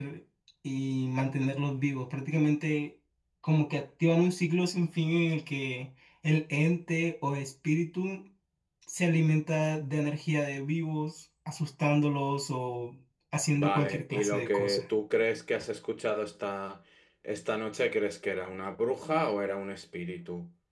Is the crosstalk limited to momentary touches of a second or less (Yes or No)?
No